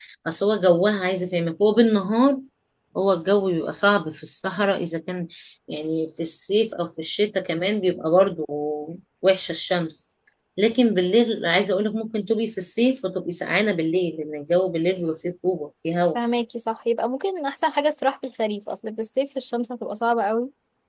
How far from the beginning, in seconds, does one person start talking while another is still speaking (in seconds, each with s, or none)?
none